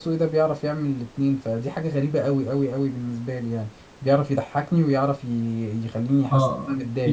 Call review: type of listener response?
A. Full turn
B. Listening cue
A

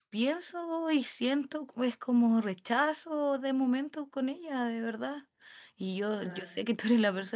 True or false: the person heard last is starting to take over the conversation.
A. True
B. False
B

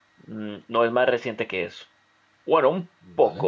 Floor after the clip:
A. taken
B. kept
B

